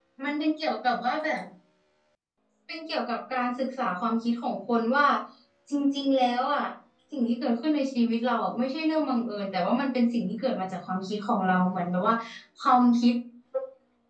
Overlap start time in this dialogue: none

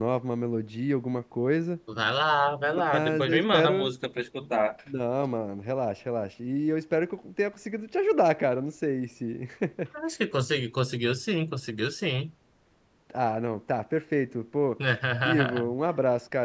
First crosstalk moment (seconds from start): 2.6 s

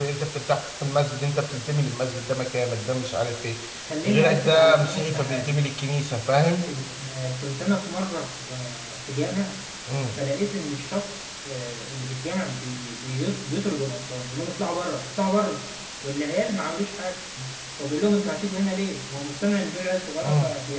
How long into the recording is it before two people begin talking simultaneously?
4.0 s

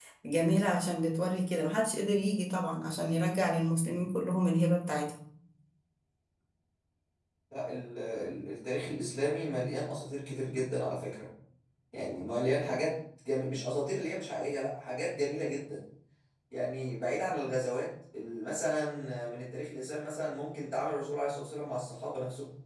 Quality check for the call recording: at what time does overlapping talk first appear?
none

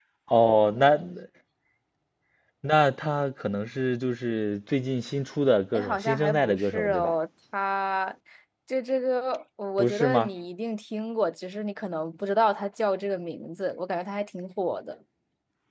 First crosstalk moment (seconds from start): 5.7 s

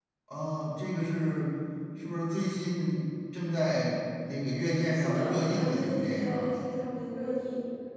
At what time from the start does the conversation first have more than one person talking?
4.9 s

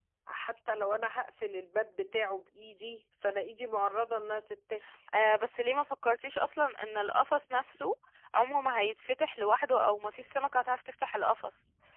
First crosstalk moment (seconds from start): none

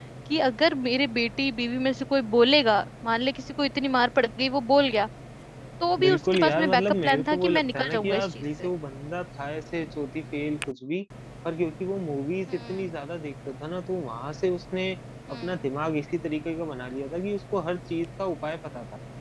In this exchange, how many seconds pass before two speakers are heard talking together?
6.0 s

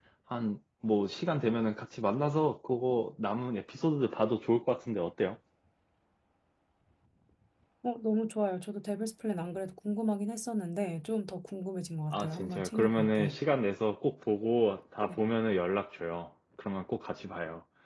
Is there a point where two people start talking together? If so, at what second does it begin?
12.1 s

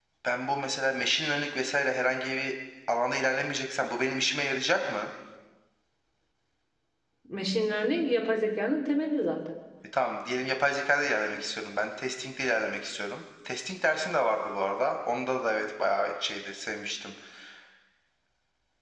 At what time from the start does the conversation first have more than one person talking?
none

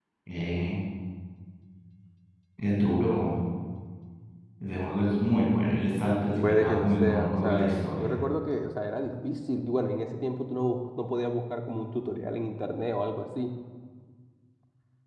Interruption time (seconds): 6.4 s

